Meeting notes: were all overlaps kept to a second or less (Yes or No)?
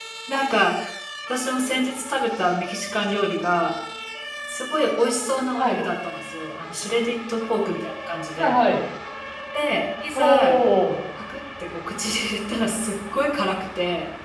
Yes